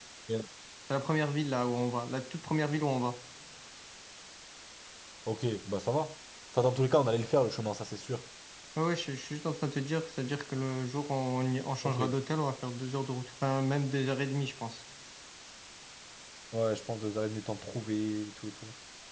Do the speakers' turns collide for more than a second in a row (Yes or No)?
No